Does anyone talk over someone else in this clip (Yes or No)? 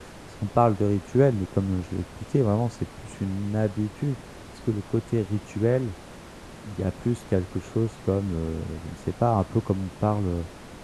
No